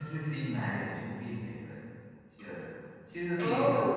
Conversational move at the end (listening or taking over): listening